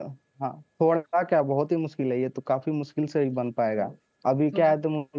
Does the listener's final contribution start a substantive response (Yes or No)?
No